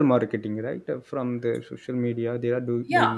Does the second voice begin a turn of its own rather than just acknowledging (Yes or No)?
No